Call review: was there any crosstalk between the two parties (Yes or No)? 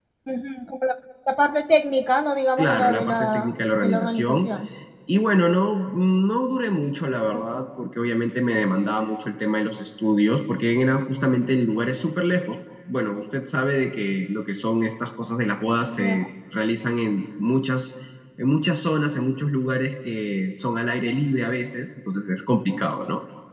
Yes